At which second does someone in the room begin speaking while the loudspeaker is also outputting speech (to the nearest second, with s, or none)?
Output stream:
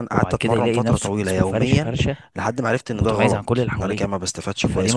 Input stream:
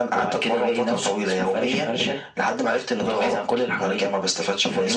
none